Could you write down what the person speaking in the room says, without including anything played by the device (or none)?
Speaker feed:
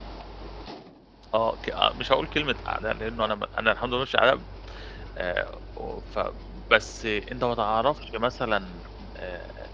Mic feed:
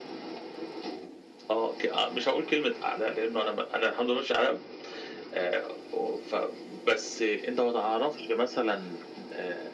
none